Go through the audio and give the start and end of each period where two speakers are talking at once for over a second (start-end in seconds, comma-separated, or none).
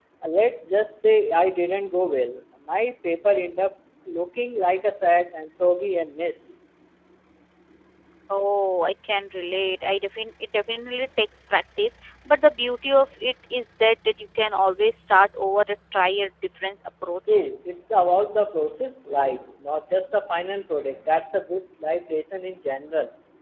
none